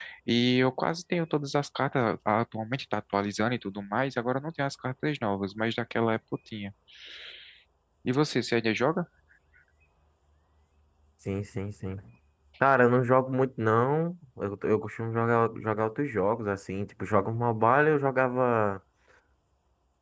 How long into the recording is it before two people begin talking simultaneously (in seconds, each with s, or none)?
none